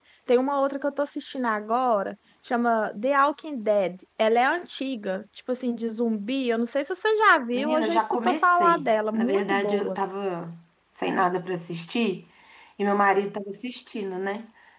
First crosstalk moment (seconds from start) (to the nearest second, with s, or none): 8 s